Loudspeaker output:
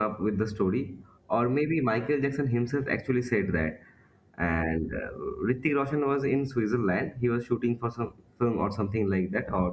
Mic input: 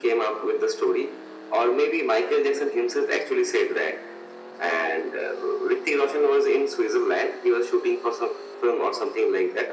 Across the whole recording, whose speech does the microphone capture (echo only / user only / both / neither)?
echo only